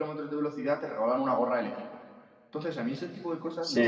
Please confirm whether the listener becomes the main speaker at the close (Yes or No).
Yes